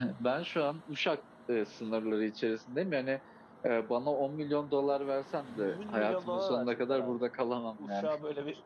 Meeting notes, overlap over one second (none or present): present